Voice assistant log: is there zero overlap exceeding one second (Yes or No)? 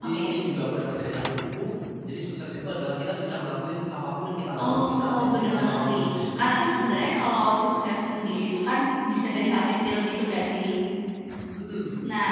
No